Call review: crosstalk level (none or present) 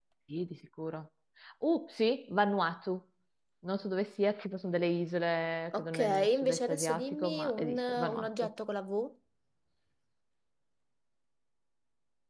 present